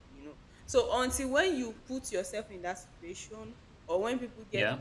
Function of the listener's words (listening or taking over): listening